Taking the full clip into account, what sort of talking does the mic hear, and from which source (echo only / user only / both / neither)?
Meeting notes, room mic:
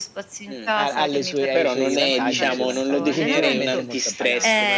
both